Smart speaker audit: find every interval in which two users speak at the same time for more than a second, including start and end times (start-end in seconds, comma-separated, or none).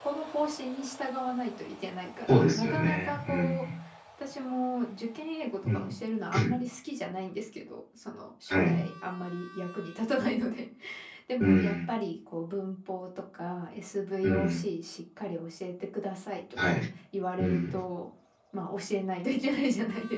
2.3-3.6